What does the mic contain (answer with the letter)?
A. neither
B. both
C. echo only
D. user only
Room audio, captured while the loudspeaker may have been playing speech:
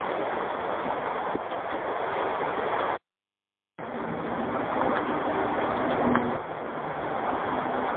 A